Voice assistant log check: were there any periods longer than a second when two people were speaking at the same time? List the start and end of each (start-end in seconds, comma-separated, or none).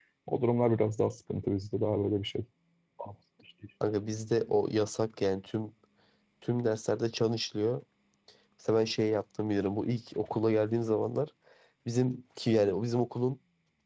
none